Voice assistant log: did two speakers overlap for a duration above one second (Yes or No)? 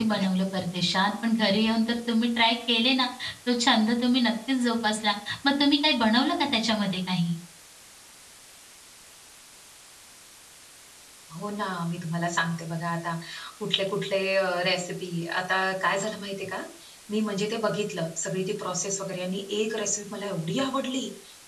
No